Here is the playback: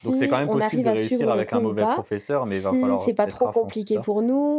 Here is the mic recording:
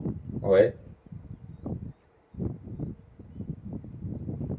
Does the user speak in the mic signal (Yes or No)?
Yes